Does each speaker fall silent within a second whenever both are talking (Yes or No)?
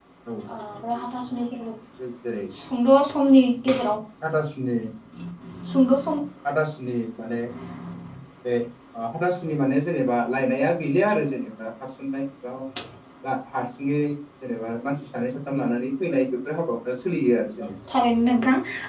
Yes